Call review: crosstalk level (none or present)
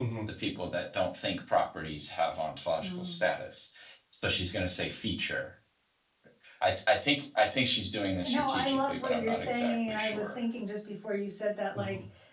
present